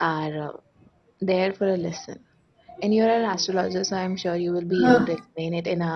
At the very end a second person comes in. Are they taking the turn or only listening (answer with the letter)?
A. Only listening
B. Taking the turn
A